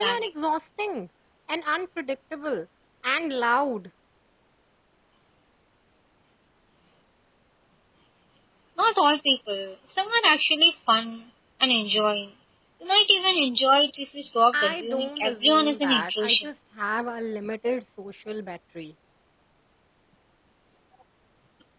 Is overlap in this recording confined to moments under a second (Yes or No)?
No